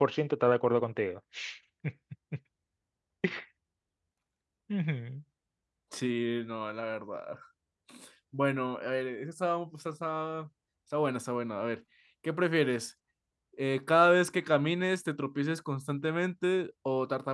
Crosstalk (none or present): none